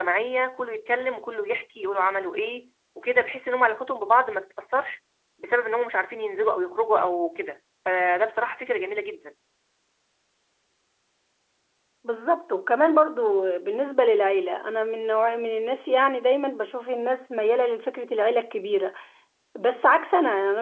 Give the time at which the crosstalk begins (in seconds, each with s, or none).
none